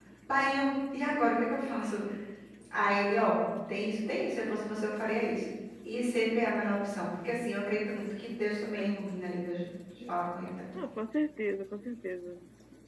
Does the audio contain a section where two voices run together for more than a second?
No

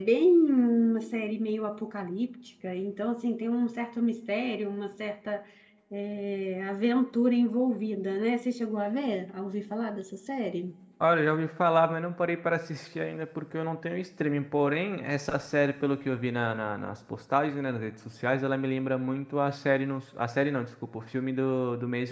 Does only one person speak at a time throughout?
Yes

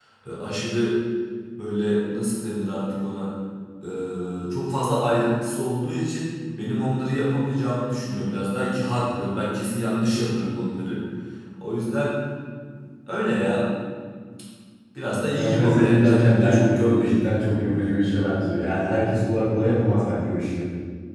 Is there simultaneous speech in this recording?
Yes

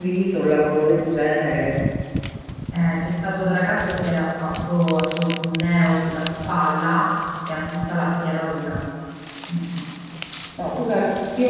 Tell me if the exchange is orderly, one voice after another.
Yes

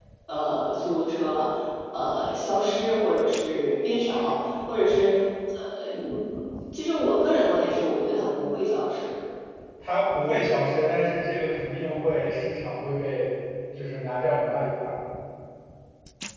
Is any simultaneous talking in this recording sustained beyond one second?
No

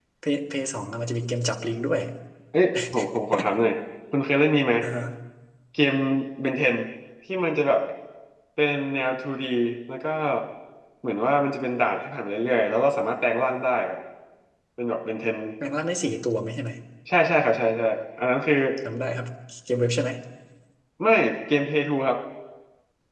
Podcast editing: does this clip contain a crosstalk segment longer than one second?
No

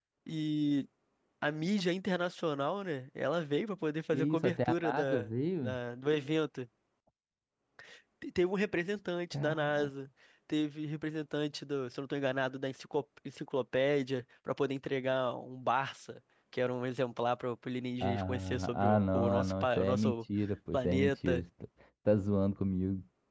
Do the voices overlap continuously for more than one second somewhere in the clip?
Yes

